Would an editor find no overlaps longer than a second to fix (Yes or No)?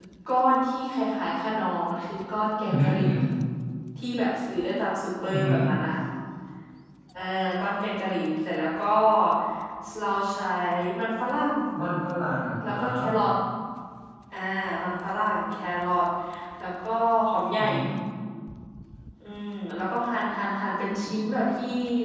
Yes